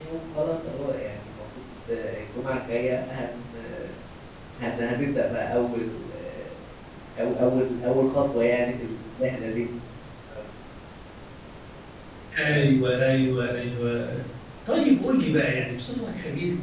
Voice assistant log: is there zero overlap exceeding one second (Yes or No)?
Yes